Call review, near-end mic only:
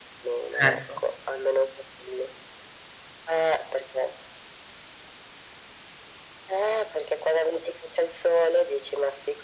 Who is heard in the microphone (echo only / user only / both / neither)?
both